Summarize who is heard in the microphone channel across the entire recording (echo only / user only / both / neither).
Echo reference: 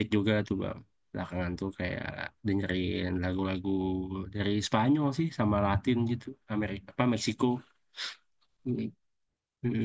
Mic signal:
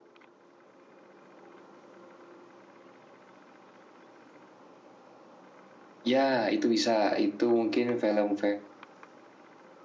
user only